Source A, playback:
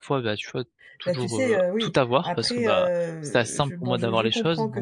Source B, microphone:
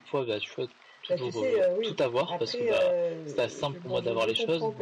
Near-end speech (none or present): none